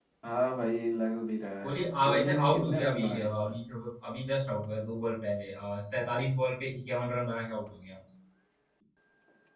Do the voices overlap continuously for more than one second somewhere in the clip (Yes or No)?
Yes